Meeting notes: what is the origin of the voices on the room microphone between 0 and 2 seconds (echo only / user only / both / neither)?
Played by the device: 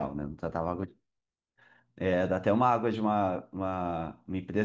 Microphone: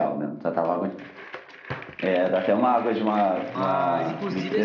echo only